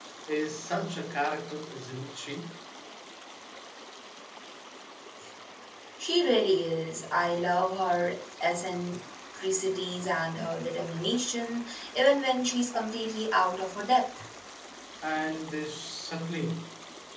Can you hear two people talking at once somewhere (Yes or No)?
No